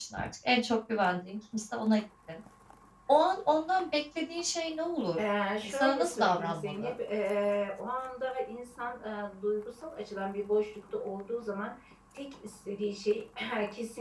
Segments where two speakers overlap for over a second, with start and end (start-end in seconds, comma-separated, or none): 5.6-6.9